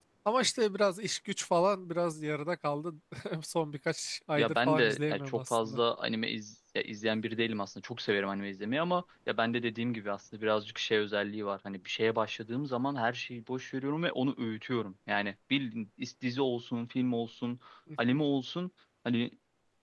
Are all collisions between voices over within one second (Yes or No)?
No